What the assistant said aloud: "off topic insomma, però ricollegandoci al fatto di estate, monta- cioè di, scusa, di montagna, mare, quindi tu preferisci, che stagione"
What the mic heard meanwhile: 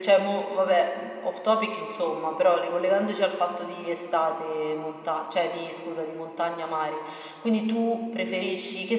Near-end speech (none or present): none